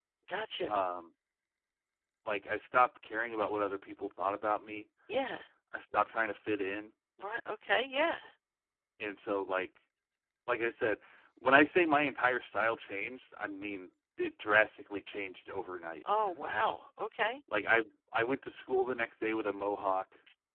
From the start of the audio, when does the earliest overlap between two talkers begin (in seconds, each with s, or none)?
none